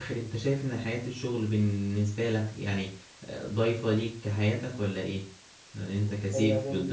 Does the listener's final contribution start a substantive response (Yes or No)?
Yes